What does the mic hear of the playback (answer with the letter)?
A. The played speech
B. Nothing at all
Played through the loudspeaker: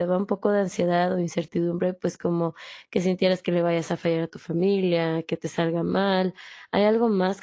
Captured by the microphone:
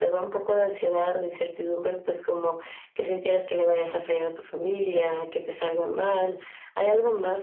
A